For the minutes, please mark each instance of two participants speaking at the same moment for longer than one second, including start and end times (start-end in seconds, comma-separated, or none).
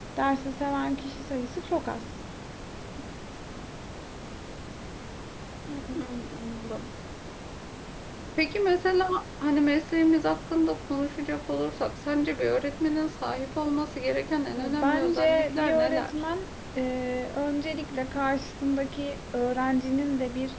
14.6-16.1